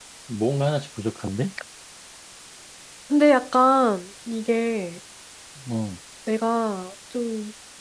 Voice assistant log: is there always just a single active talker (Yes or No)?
Yes